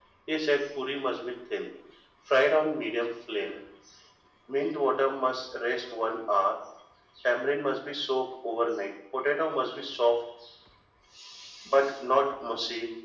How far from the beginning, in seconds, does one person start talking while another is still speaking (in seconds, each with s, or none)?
none